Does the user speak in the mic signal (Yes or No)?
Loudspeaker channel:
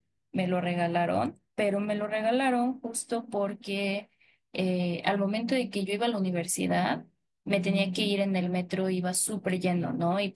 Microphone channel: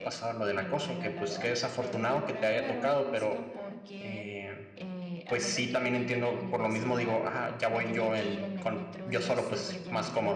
Yes